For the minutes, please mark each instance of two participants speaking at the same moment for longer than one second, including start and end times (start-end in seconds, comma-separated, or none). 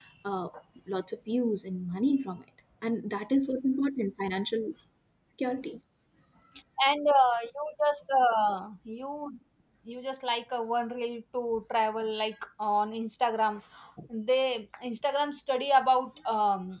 none